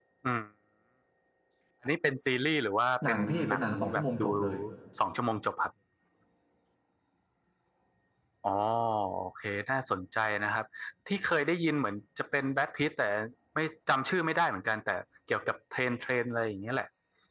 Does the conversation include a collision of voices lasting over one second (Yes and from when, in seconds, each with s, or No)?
Yes, from 3.0 s